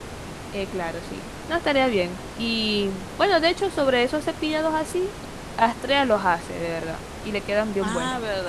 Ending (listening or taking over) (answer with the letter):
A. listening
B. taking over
B